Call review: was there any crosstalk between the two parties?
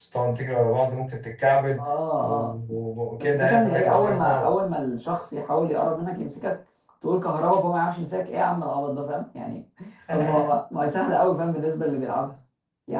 Yes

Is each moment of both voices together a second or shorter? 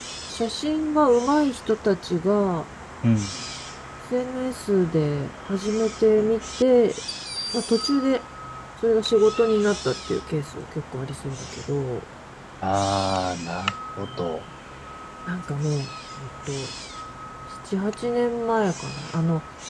Yes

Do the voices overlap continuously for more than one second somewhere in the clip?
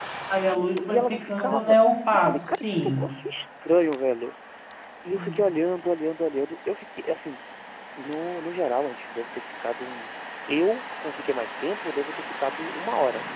Yes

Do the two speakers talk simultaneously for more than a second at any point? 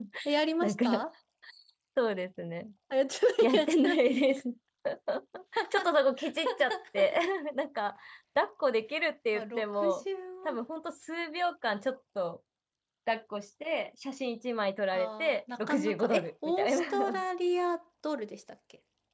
Yes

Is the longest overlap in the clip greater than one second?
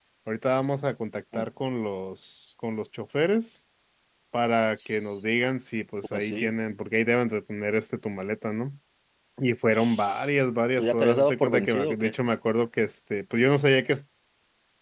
Yes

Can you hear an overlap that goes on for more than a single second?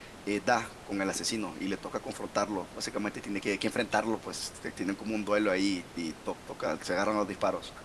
No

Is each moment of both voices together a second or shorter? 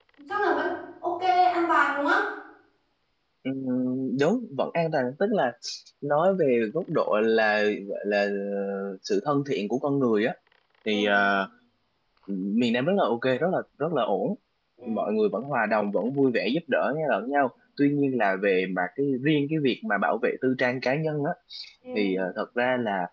Yes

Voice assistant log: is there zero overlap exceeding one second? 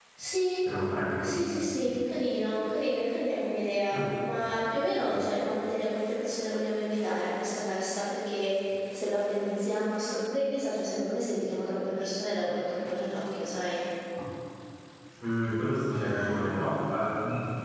Yes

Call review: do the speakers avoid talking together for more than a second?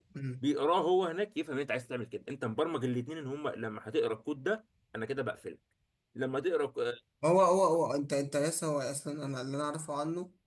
Yes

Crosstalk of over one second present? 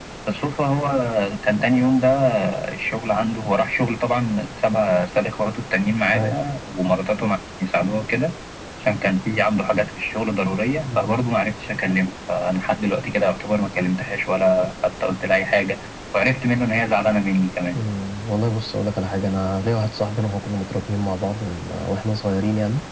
No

